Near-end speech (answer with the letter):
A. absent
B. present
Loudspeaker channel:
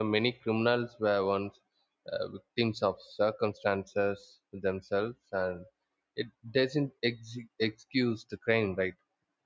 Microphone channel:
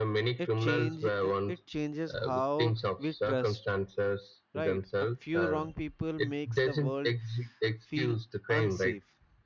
B